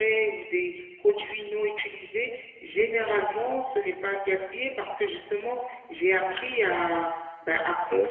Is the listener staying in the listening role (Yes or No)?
Yes